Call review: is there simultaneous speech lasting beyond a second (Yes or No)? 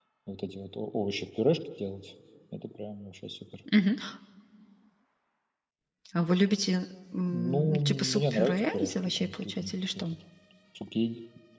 Yes